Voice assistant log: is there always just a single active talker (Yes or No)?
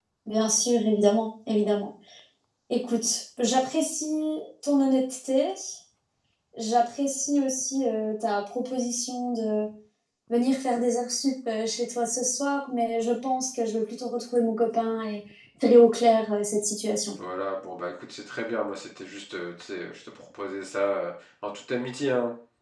Yes